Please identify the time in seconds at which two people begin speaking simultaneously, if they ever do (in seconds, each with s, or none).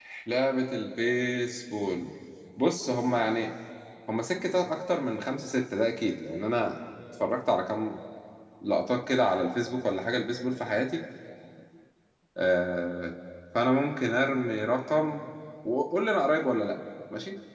none